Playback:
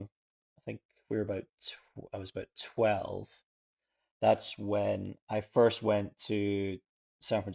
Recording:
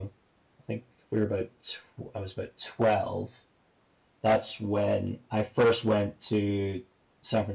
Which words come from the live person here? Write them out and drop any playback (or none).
none